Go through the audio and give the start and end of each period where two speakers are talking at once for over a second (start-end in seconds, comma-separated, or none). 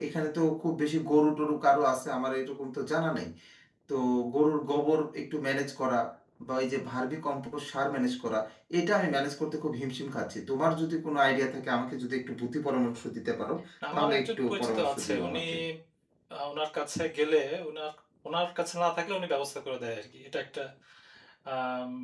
13.9-15.4